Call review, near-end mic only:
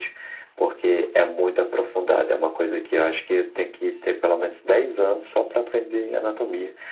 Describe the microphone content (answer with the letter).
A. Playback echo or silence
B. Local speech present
A